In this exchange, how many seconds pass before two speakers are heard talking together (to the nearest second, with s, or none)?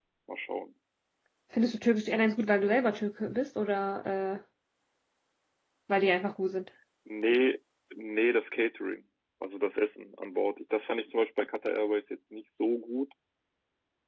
none